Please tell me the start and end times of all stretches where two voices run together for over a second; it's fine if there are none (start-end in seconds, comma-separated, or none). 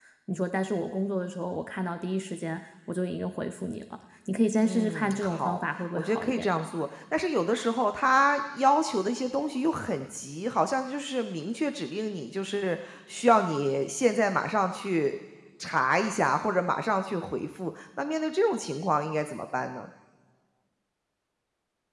4.6-6.5